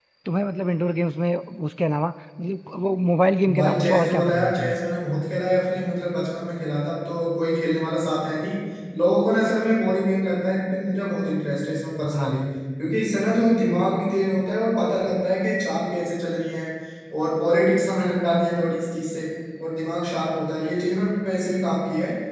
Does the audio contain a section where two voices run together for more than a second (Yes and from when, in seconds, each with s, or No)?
Yes, from 3.4 s